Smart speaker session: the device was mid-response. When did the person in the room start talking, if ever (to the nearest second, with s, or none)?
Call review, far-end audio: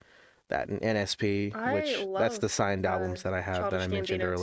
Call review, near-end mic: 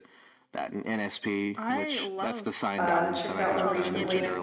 3 s